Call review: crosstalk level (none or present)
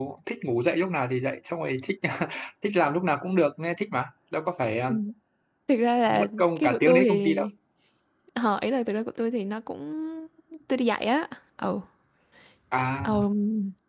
present